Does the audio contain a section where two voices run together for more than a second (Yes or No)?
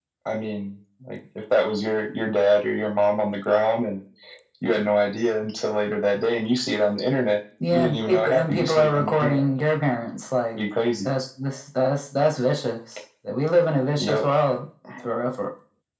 Yes